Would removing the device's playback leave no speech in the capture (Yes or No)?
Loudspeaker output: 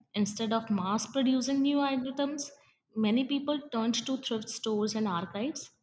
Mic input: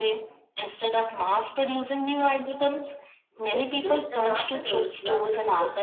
No